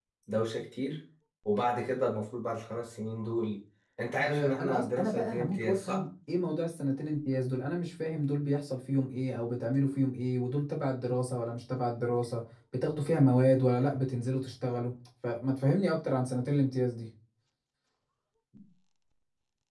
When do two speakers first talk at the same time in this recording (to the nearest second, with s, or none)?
4 s